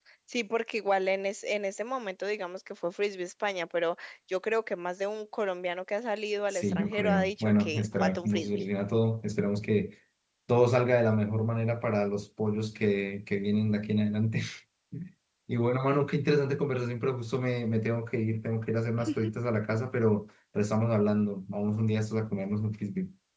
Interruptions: present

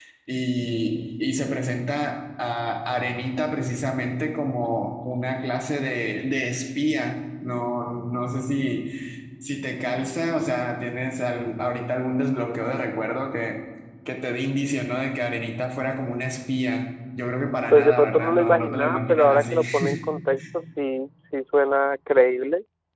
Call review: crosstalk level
present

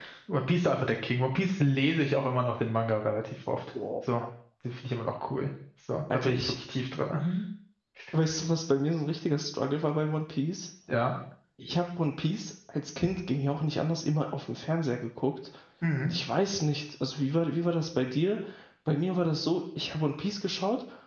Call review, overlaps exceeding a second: none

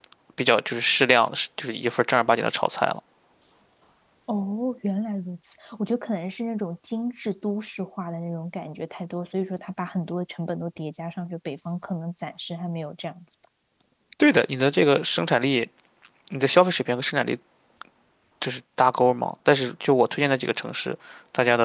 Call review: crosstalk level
none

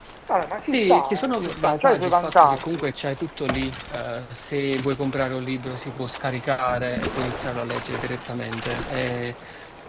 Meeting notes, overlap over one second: present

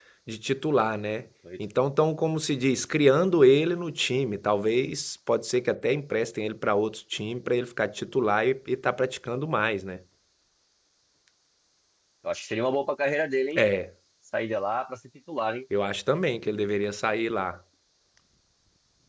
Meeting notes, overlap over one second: none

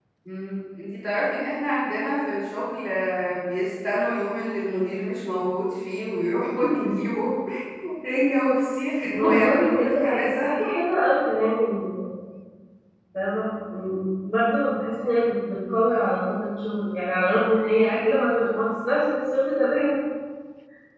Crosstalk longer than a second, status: present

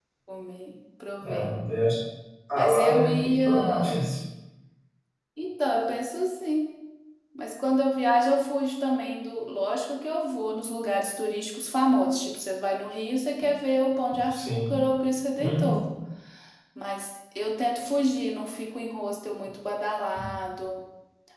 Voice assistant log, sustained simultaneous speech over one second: present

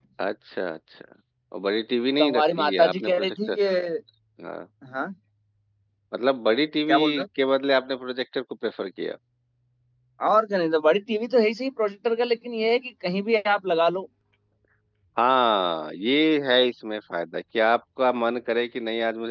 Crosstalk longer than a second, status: present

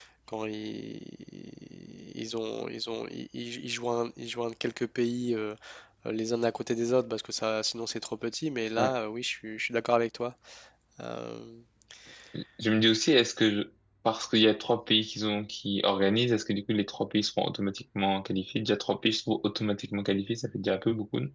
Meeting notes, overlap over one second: none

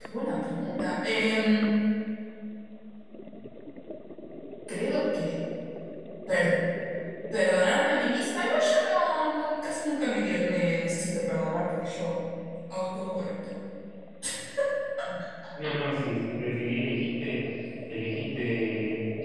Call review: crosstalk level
none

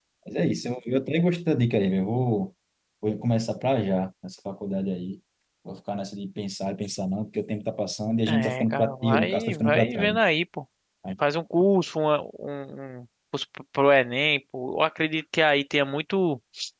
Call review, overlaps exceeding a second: present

